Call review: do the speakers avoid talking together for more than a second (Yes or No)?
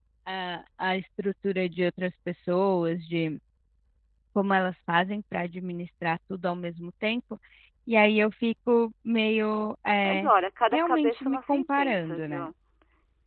No